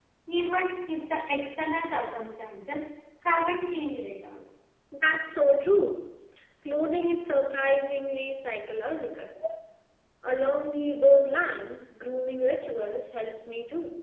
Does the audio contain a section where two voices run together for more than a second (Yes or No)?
No